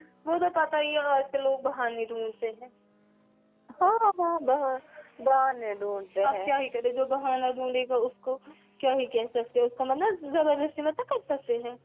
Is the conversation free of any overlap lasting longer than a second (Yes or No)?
Yes